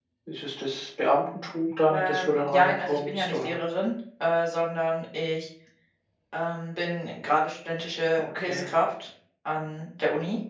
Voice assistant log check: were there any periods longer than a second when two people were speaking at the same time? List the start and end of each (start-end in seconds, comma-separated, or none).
1.9-3.5